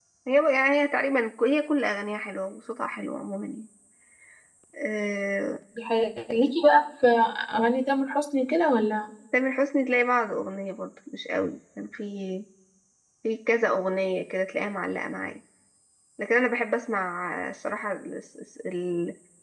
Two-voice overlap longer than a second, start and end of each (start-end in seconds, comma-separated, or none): none